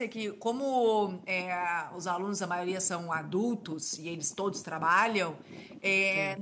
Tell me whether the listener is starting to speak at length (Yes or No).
No